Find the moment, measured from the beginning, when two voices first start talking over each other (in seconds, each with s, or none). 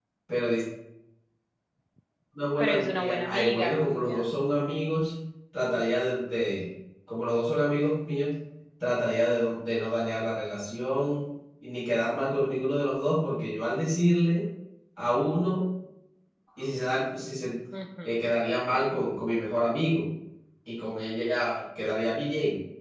2.6 s